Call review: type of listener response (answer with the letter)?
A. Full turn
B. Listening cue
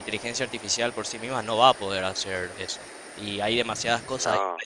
B